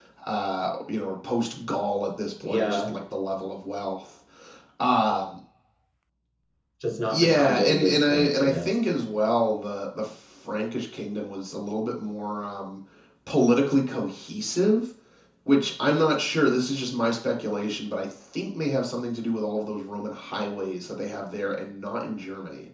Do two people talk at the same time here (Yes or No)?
Yes